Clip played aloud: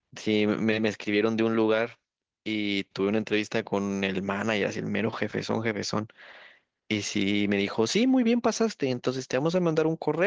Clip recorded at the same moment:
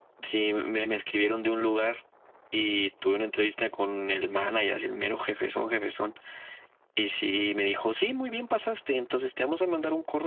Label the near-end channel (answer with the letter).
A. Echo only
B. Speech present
A